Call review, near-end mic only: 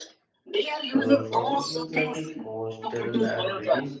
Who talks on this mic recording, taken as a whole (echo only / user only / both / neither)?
both